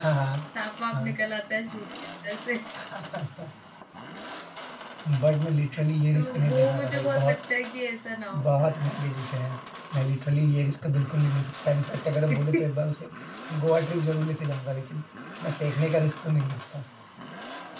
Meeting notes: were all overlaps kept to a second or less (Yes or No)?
No